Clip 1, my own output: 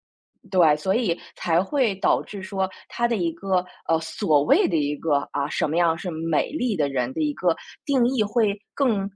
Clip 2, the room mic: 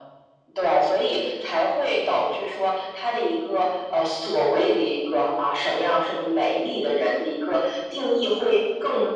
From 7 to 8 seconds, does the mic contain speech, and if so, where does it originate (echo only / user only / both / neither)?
echo only